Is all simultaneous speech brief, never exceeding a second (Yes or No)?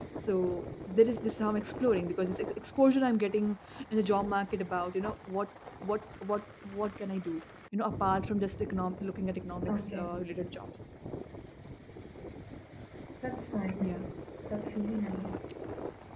Yes